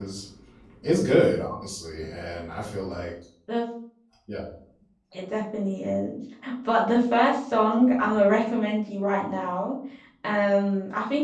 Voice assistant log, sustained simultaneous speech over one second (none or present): none